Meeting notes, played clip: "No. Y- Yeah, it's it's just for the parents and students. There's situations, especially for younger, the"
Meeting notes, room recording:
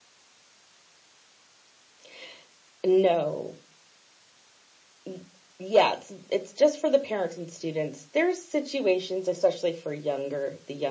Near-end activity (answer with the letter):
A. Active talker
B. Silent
B